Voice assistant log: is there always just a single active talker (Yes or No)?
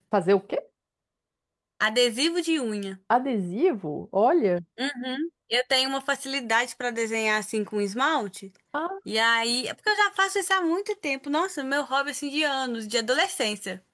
Yes